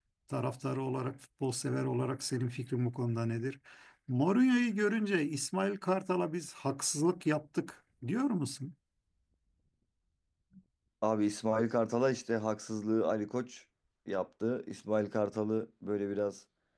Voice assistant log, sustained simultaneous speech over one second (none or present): none